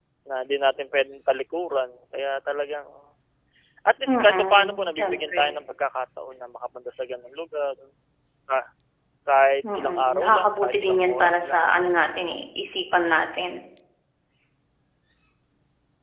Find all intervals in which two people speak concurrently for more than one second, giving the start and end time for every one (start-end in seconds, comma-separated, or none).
4.1-5.4, 9.7-11.7